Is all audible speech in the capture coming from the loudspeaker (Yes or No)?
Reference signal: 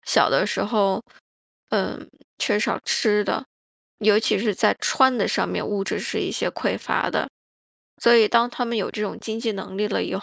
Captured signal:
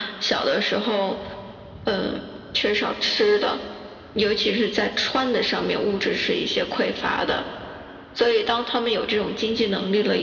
Yes